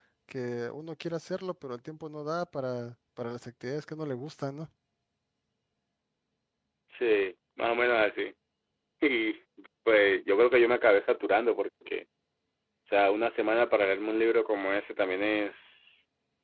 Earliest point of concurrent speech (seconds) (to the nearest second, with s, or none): none